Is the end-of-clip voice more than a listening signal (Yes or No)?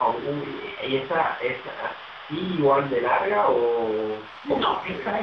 Yes